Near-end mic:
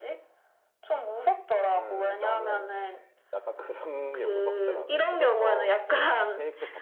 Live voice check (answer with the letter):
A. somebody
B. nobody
A